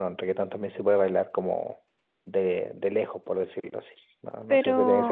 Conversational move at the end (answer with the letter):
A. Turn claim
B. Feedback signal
A